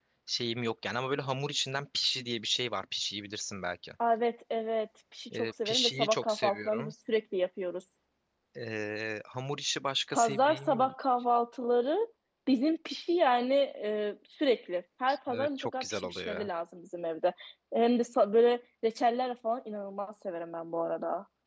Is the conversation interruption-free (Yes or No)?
No